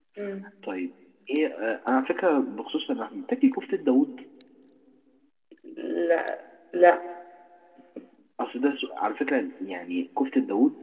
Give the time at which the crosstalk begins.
none

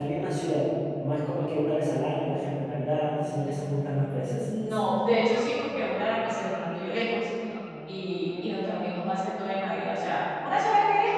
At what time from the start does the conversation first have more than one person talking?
none

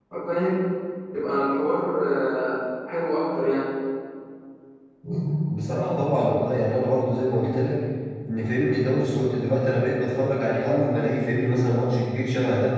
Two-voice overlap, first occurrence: none

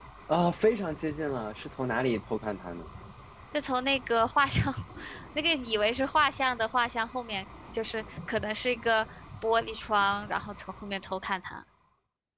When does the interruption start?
none

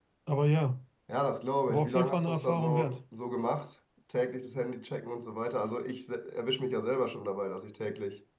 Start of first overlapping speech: 1.7 s

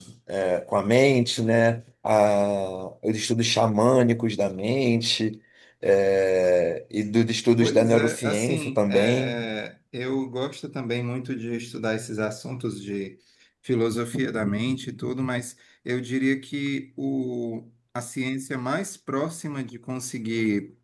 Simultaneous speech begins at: 7.6 s

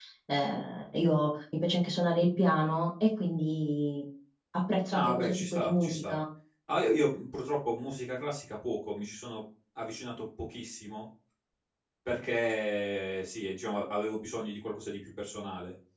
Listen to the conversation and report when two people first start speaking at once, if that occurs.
4.9 s

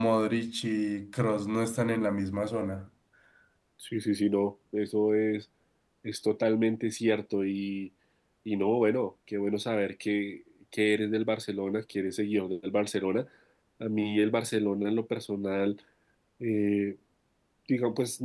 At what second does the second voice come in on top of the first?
none

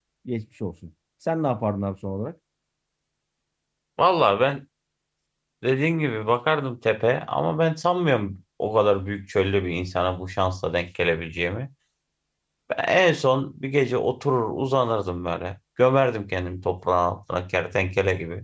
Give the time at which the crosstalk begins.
none

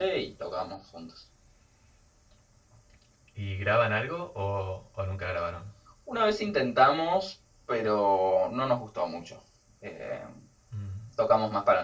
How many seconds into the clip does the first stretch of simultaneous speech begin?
none

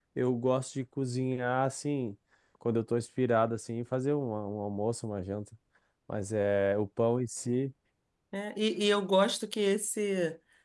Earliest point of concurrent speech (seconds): none

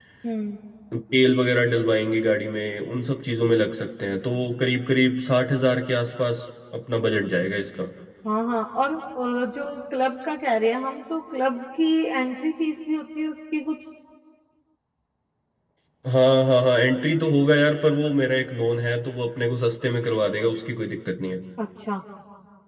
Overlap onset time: none

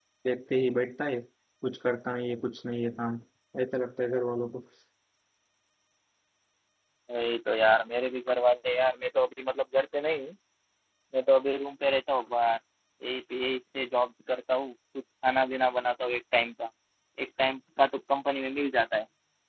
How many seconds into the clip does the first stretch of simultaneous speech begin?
none

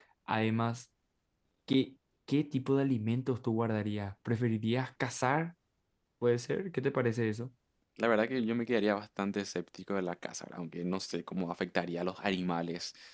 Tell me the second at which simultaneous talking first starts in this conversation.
none

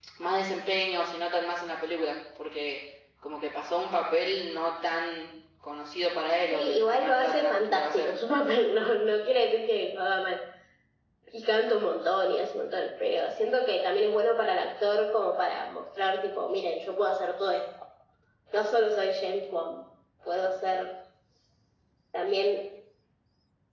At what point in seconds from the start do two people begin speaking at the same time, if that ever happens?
6.5 s

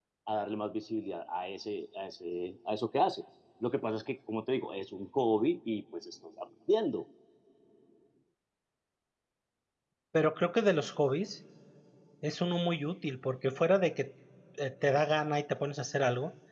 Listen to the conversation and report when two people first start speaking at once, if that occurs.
none

